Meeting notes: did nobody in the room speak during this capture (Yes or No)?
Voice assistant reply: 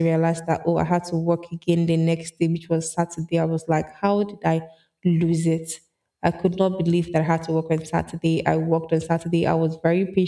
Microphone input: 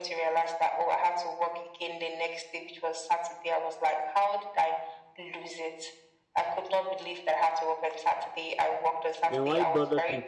No